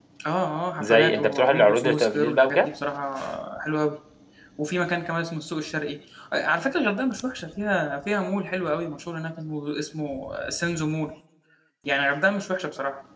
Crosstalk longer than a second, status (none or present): present